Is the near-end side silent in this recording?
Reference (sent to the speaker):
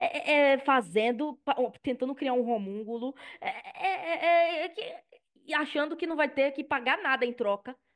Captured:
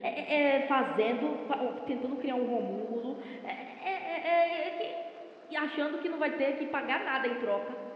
Yes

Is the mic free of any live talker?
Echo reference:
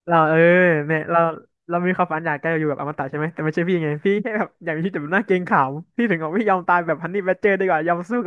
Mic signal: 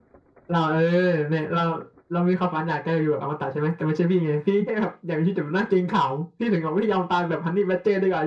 Yes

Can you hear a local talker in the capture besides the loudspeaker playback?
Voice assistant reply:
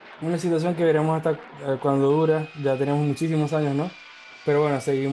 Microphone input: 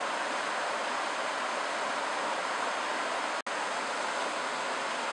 No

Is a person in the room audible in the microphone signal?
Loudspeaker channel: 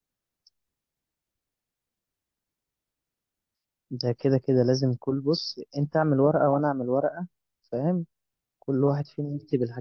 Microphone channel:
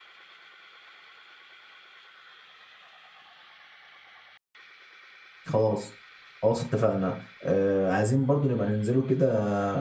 Yes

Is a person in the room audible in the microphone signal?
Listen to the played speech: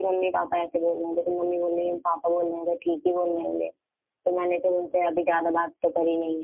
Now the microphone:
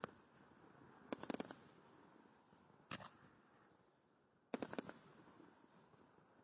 No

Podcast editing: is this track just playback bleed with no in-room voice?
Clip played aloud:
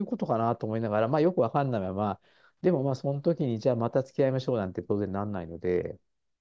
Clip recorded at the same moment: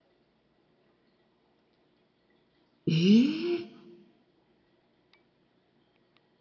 No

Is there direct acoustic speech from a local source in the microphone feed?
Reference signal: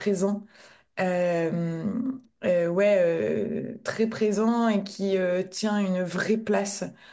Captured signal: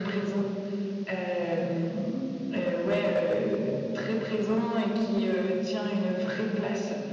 No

